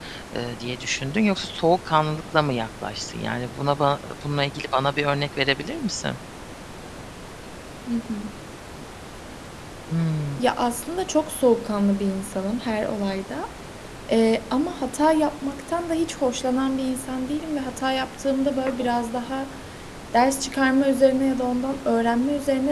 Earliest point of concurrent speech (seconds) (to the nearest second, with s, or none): none